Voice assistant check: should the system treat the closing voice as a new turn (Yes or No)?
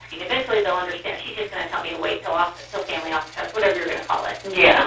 No